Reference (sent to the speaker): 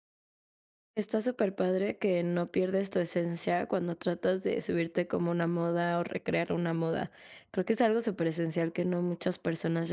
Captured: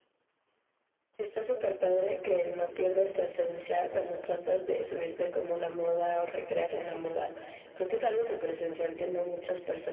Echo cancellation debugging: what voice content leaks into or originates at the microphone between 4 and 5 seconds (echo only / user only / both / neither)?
echo only